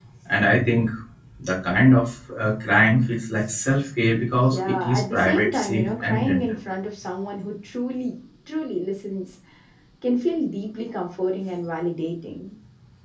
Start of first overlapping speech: 4.5 s

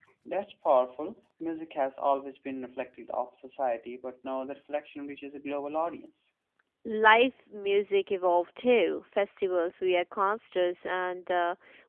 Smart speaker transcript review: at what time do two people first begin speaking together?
none

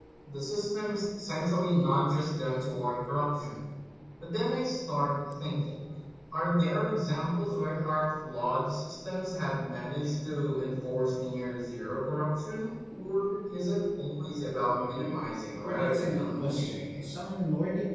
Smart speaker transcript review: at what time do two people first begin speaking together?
15.6 s

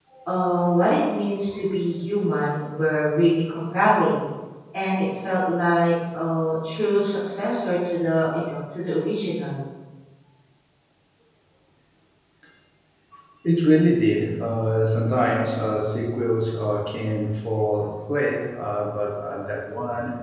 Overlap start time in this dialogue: none

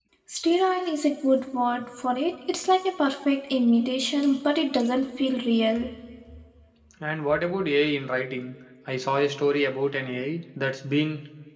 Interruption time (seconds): none

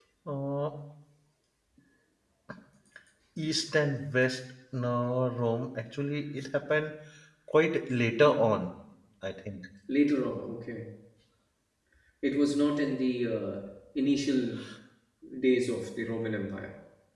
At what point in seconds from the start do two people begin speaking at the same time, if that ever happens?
none

